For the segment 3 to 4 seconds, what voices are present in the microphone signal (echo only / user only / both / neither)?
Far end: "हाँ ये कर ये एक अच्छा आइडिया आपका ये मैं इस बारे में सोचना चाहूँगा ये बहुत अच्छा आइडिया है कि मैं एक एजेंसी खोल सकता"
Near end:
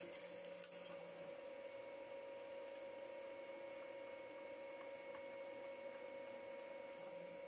neither